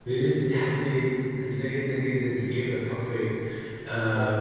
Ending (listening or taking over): listening